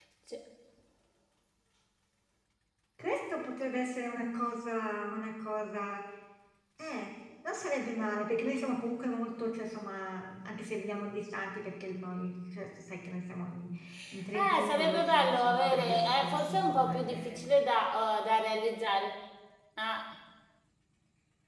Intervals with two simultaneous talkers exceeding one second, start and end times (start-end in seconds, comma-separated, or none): 14.3-17.4